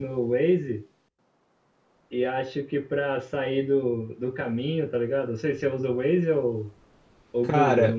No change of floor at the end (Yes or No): No